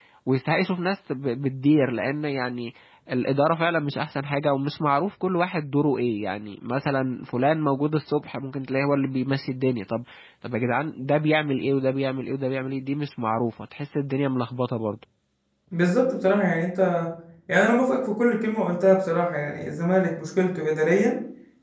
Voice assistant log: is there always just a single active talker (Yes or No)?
Yes